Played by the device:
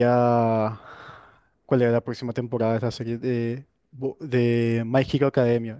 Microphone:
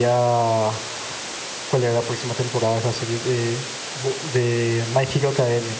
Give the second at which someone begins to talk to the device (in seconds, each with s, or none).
none